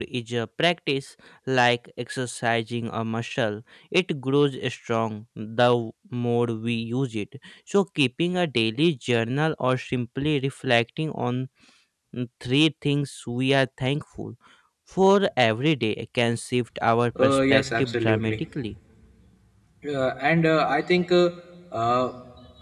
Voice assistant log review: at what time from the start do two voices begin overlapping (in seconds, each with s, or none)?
17.2 s